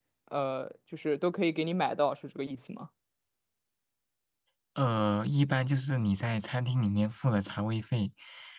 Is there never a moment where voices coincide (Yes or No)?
Yes